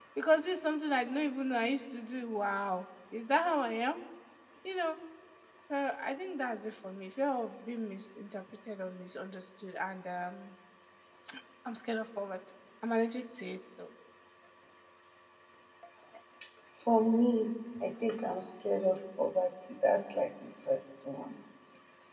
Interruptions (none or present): none